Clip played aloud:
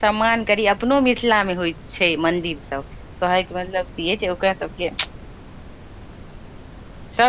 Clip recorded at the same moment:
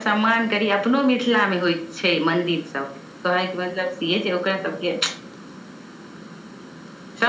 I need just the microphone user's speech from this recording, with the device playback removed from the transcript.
none

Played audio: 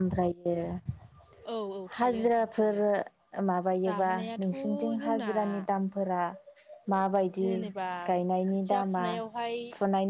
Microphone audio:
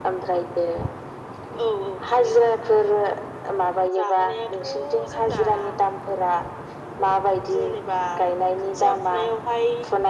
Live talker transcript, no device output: none

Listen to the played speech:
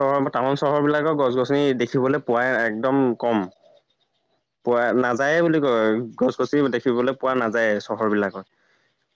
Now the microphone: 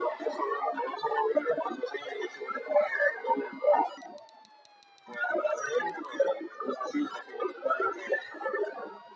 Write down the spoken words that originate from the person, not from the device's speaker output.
none

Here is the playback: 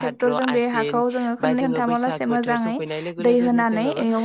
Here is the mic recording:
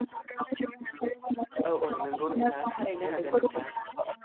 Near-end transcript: औ औ नंगौ नोंथां थारैनो हागोन नोंथां

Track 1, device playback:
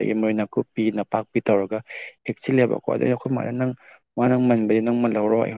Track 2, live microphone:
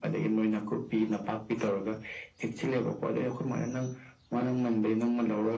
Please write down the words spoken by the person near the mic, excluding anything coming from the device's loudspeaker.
none

